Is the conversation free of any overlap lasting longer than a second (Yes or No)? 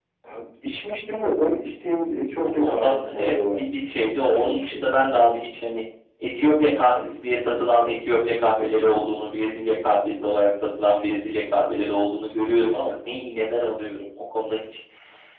No